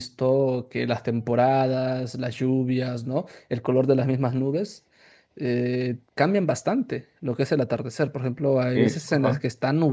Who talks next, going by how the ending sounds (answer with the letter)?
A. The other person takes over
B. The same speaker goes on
B